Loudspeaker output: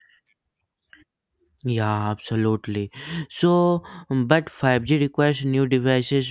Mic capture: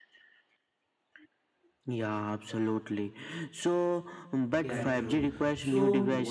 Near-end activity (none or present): present